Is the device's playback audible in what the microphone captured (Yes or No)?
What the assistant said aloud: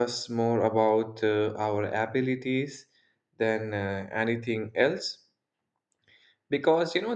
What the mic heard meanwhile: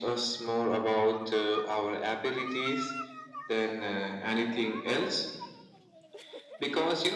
Yes